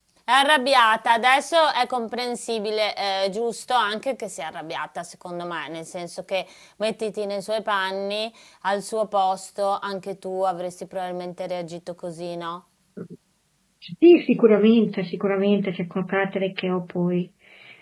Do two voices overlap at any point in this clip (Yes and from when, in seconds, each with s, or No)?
No